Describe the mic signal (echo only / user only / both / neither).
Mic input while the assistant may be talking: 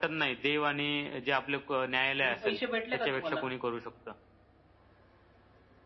both